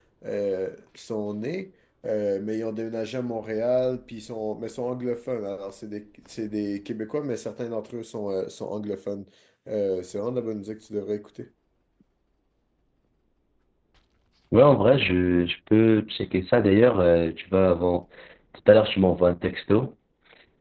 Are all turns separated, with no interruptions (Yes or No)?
Yes